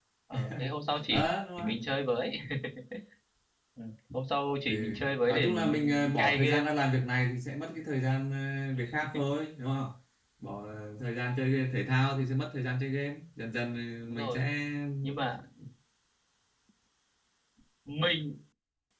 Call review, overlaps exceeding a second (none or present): present